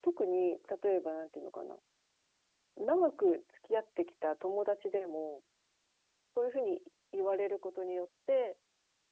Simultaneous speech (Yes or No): No